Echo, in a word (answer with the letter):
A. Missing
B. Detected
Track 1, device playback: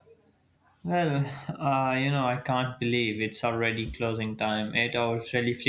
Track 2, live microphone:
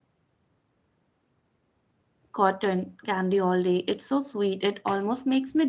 A